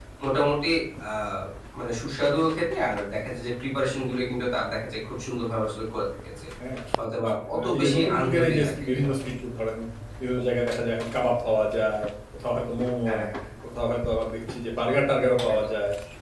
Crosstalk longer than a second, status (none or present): present